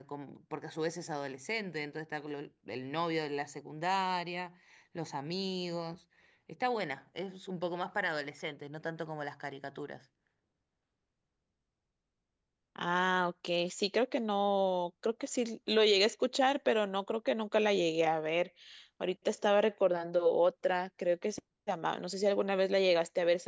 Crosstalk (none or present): none